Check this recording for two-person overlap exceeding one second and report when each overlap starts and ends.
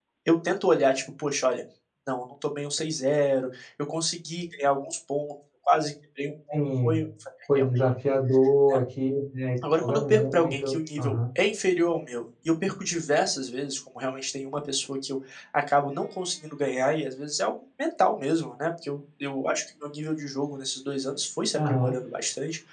9.8-11.2

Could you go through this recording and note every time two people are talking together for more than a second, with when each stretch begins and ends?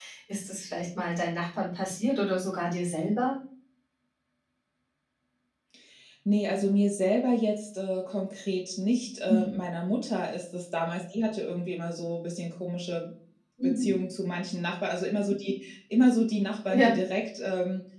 none

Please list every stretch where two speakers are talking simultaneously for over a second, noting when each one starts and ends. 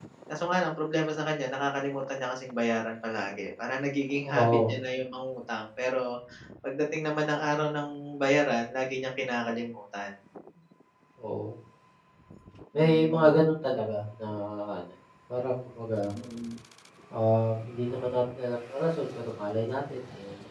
none

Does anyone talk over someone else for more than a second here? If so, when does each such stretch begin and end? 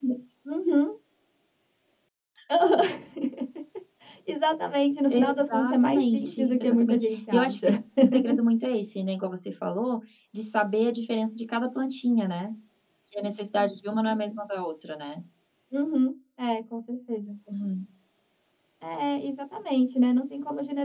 5.1-7.7

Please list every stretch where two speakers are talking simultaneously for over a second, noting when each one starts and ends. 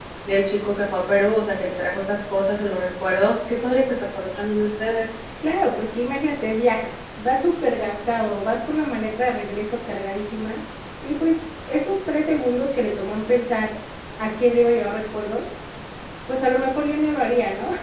none

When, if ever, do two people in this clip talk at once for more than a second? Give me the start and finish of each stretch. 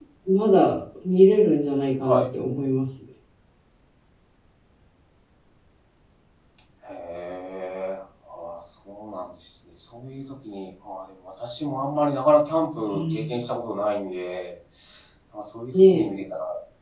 none

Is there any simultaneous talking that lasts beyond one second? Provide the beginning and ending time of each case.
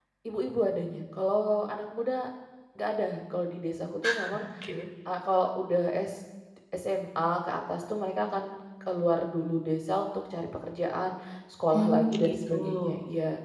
11.7-12.9

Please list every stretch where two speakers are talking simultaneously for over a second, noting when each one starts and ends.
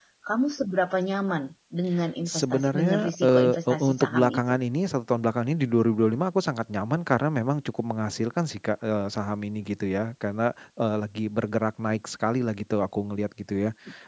2.3-4.6

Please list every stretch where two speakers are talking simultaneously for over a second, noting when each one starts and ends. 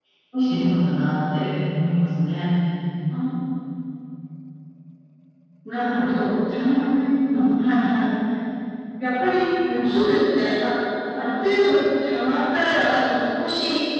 none

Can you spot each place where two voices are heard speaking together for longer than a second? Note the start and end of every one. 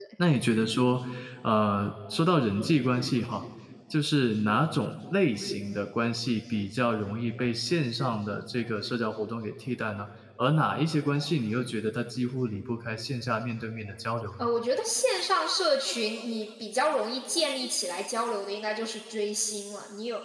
none

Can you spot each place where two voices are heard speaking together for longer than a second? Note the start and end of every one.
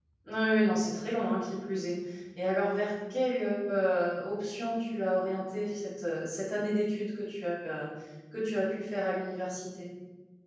none

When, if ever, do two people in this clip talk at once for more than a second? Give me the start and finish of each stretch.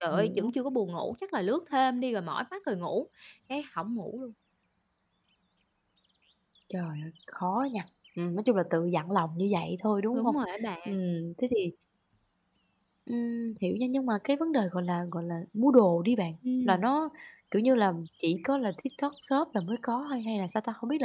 none

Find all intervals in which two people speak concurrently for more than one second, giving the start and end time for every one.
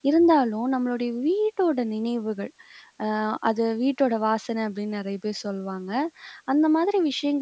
none

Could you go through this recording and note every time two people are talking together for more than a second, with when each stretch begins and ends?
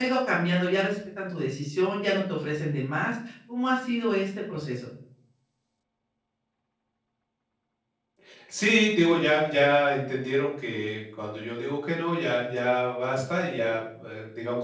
none

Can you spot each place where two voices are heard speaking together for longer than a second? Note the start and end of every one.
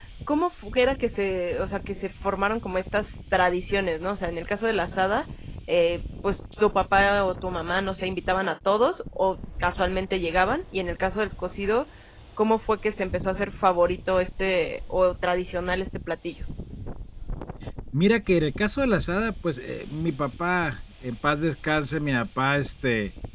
none

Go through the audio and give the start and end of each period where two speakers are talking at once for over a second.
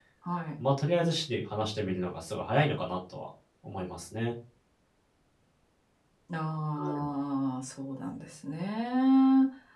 none

